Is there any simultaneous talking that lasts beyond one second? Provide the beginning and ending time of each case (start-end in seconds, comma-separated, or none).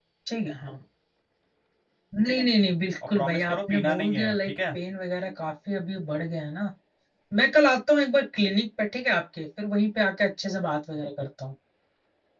3.1-4.8